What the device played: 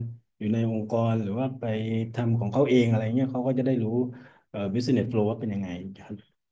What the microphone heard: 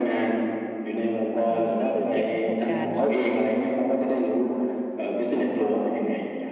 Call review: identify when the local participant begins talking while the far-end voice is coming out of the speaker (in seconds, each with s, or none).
1.4 s